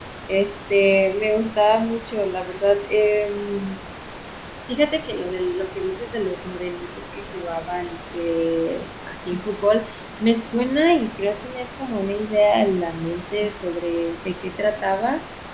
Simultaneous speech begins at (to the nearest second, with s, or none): none